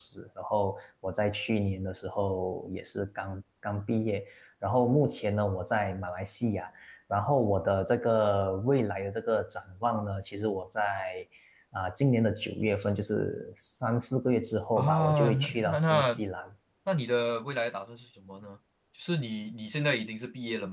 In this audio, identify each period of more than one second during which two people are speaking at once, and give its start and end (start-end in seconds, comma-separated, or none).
14.8-16.2